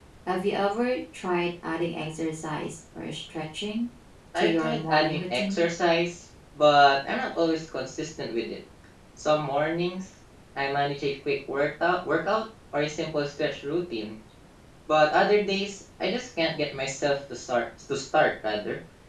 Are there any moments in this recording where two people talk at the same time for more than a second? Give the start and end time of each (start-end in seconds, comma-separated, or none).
4.4-5.6